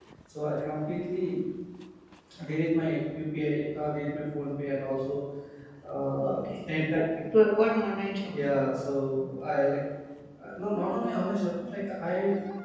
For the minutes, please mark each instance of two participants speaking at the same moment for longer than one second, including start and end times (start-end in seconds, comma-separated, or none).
none